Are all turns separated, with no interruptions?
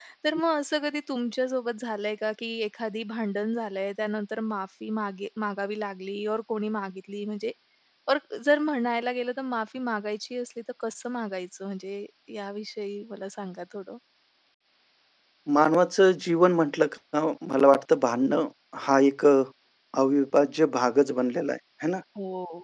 Yes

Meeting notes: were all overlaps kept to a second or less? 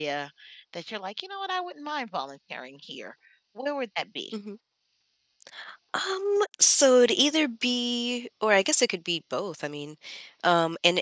Yes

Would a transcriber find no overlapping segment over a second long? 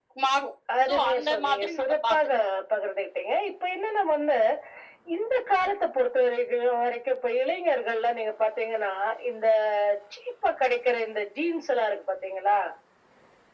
No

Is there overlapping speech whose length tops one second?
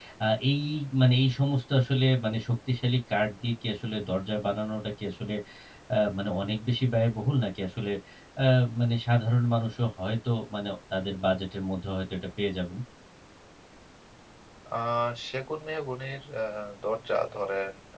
No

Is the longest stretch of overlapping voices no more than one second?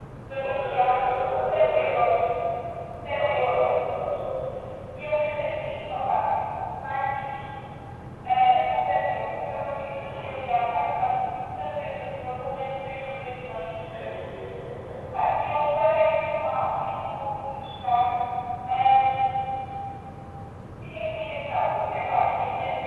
No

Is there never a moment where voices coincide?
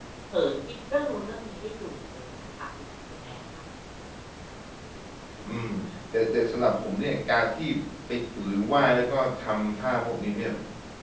Yes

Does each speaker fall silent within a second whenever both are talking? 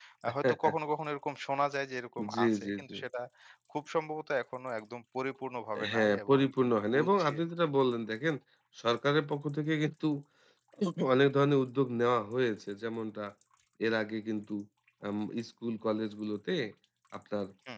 No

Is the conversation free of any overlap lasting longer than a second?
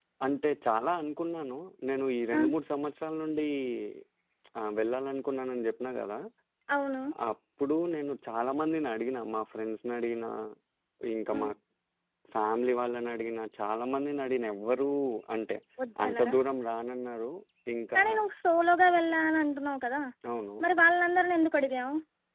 Yes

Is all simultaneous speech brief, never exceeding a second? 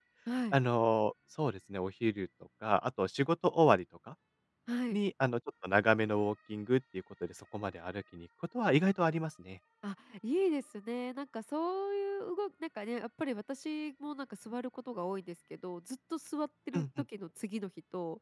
Yes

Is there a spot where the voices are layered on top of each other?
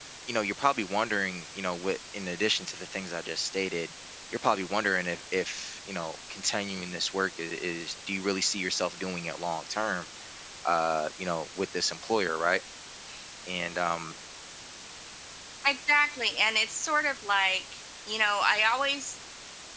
No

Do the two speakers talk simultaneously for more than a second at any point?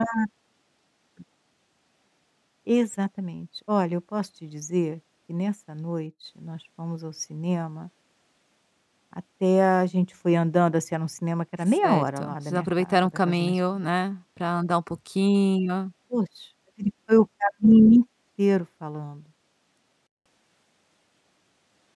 Yes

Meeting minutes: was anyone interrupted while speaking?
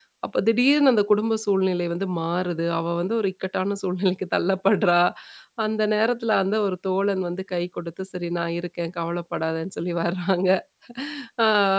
No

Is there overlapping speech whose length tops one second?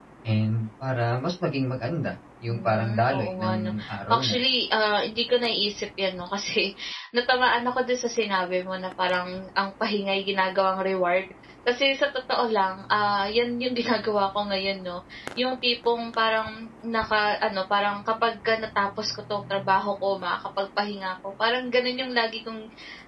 Yes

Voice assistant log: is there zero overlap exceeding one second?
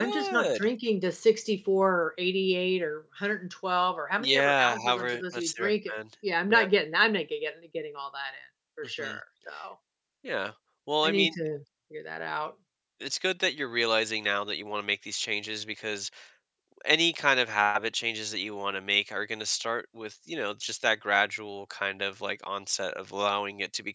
No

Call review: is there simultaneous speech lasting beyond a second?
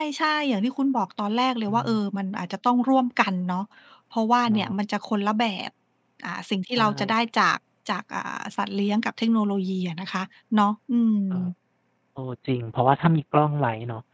No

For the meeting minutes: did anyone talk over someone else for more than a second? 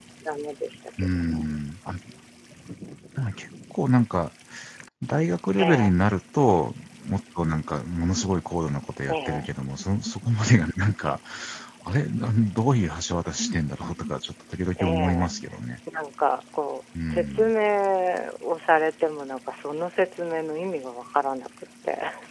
No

